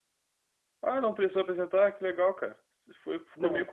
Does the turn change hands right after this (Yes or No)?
No